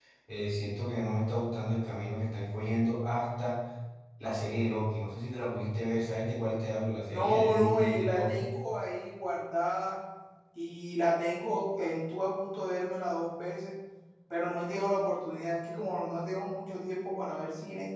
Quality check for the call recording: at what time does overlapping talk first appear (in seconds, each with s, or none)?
7.1 s